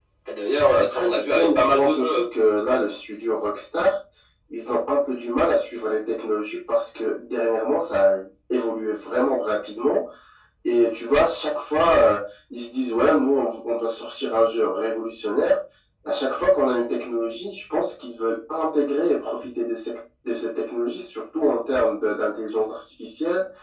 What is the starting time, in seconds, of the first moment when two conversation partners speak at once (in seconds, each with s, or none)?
0.8 s